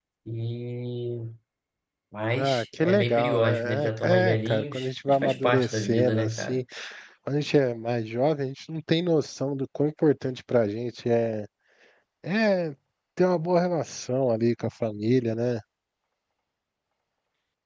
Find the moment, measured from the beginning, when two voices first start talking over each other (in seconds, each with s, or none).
2.3 s